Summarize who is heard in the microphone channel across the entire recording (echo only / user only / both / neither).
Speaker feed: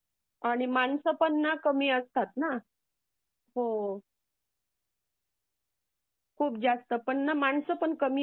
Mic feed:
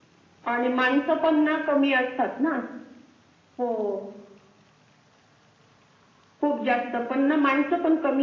echo only